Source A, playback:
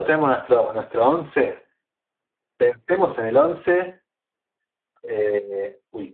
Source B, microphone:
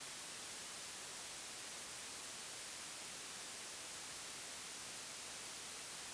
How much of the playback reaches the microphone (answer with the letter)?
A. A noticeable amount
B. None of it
B